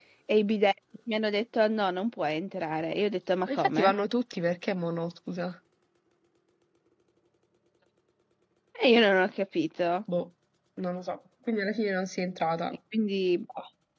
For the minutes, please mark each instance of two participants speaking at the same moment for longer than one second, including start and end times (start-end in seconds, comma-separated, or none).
none